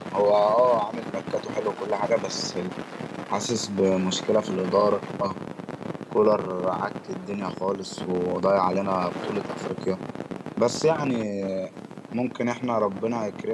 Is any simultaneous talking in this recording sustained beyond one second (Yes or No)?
No